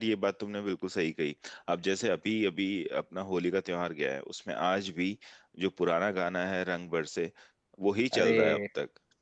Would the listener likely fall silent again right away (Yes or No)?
Yes